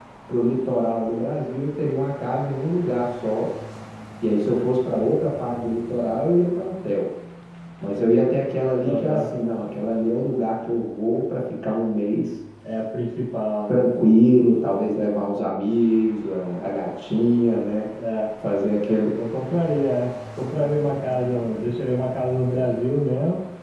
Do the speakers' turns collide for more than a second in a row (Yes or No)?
No